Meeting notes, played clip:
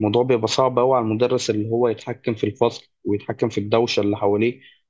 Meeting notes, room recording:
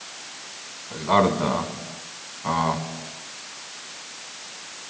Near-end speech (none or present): present